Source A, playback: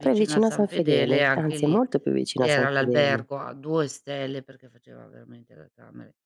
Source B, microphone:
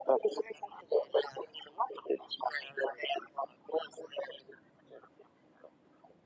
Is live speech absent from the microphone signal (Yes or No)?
Yes